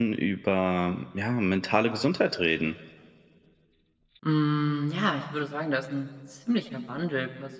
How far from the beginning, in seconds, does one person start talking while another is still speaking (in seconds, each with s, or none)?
none